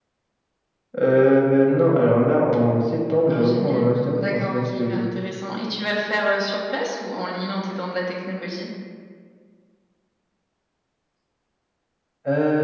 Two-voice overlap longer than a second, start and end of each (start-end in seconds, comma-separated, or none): 3.3-5.0